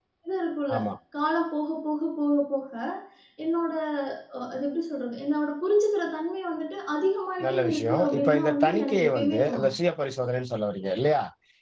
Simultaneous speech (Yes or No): Yes